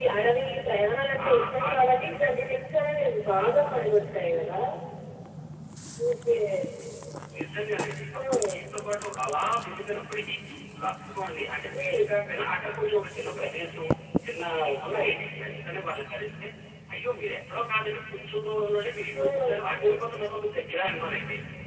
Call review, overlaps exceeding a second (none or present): none